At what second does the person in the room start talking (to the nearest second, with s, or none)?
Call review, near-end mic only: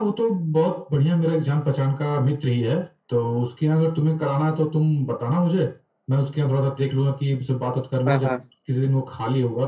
8 s